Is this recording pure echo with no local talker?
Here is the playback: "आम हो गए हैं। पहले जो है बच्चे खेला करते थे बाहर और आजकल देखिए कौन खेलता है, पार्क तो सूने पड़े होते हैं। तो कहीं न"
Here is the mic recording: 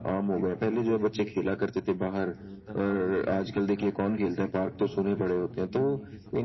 No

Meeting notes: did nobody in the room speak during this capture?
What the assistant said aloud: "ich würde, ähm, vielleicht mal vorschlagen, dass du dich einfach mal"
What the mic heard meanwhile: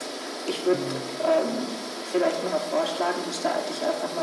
No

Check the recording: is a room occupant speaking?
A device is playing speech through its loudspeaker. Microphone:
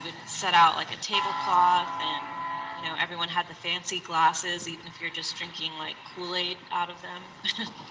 No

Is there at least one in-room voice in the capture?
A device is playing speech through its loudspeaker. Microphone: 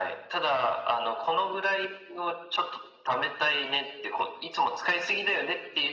No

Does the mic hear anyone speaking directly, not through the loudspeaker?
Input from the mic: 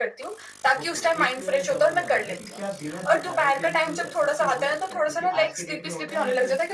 Yes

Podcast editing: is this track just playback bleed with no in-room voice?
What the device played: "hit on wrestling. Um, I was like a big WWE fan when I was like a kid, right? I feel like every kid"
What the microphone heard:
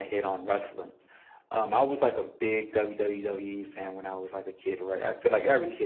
Yes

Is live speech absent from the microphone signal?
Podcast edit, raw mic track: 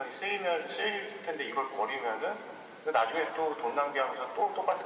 Yes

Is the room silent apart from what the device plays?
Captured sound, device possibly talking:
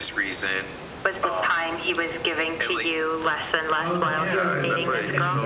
No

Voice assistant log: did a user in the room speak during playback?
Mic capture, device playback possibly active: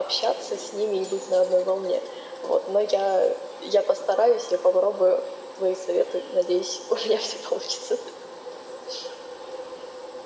No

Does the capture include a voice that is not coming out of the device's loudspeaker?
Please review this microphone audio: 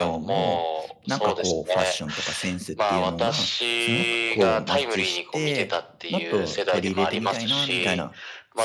Yes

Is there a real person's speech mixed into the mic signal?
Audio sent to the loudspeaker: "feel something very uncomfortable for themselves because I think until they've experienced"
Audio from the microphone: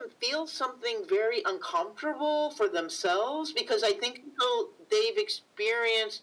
No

